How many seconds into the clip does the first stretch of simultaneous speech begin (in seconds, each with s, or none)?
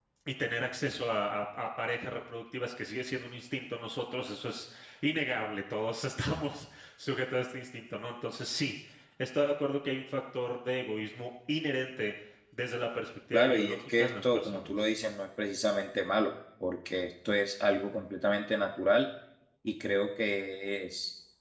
13.3 s